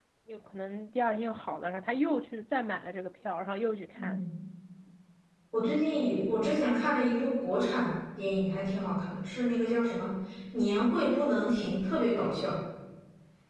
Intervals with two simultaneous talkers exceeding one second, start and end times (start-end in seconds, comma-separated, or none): none